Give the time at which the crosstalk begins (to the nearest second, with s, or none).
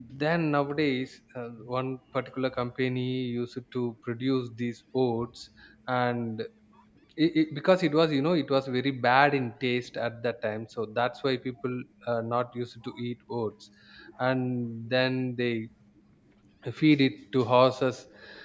none